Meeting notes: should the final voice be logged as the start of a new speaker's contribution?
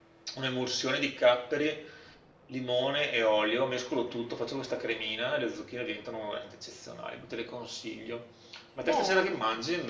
No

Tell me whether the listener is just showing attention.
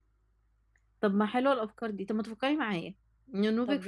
Yes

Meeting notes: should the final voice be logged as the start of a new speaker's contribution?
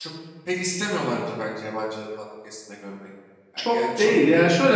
Yes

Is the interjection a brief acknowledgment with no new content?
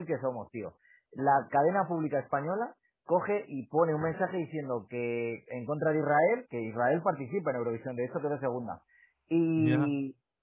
Yes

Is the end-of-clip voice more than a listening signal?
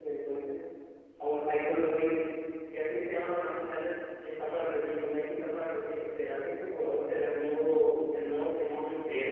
Yes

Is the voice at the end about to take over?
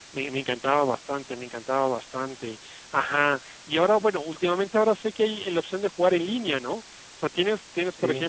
No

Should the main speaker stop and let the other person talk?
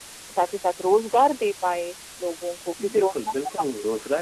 Yes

